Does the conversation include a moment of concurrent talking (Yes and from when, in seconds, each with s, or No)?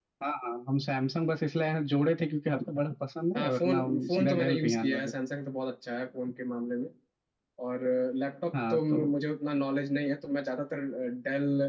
Yes, from 3.4 s